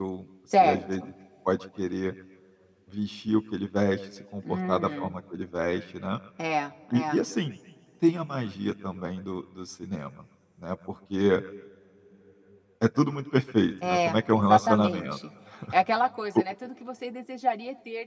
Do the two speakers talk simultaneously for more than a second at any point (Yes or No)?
Yes